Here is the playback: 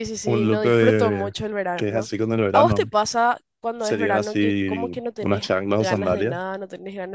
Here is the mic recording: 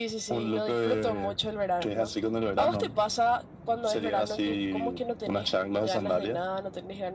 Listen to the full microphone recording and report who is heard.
echo only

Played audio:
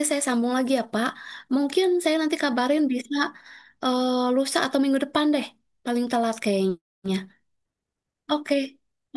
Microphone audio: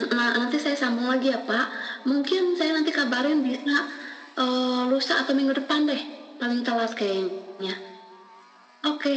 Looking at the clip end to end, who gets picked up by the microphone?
echo only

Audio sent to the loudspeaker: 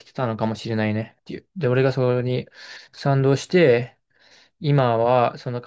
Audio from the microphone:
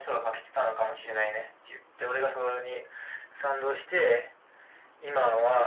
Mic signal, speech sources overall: echo only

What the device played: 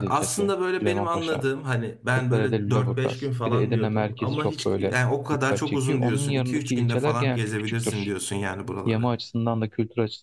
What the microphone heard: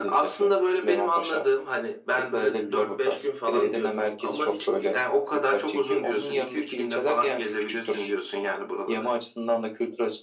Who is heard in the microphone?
echo only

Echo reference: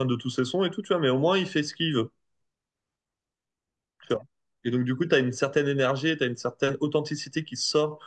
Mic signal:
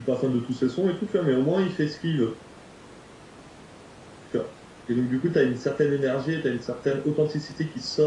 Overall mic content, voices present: echo only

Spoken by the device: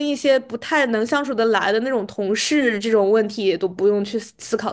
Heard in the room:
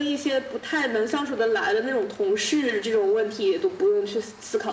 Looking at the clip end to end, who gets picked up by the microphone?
echo only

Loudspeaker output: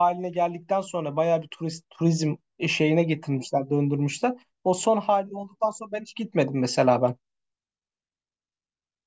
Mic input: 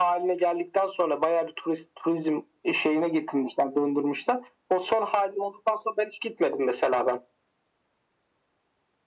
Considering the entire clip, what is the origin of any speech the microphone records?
echo only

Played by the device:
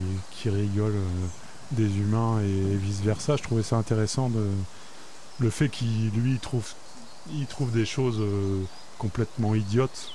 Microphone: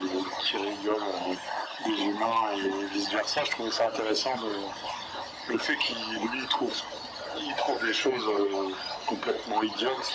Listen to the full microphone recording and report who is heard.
echo only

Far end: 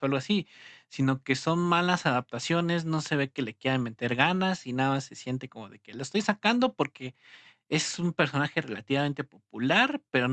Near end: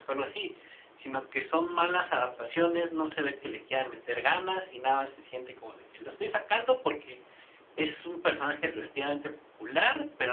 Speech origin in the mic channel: echo only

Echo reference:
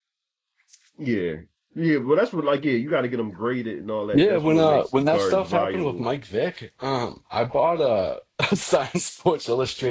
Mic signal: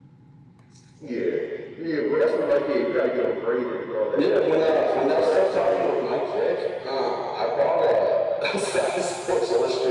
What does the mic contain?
echo only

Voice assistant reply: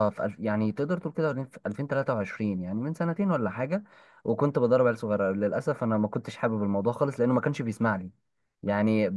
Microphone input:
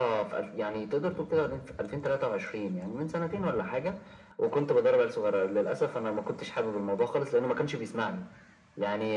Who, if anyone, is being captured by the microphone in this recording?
echo only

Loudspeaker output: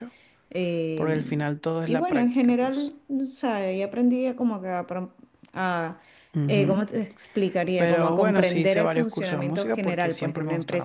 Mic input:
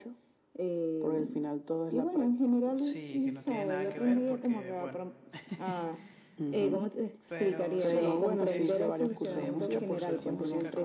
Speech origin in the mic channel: both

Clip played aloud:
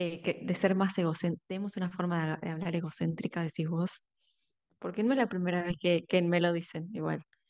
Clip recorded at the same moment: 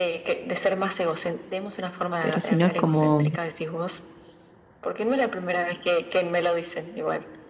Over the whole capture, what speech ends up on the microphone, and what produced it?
both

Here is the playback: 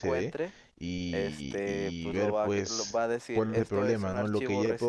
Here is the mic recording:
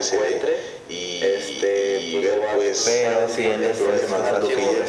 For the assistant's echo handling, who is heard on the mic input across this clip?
both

